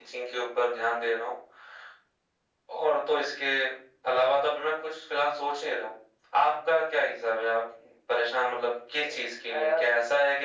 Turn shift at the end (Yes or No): No